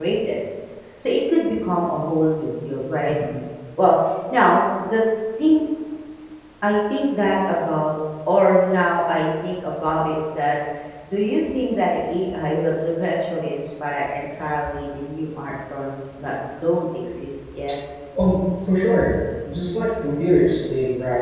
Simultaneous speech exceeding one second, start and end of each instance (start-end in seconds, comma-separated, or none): none